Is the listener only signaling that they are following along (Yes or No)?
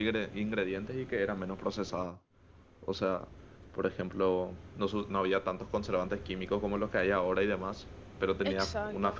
Yes